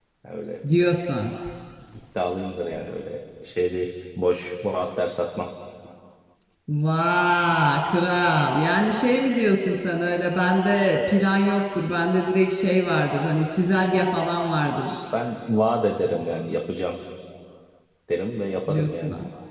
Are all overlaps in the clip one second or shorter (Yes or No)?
Yes